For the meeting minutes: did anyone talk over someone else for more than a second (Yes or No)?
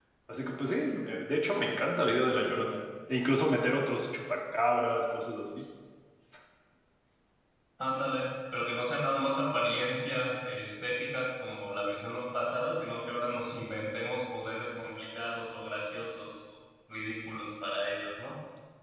No